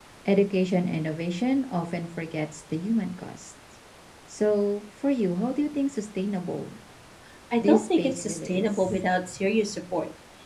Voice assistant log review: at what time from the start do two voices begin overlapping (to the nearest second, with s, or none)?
8 s